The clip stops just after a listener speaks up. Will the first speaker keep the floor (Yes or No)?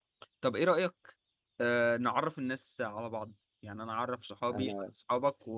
Yes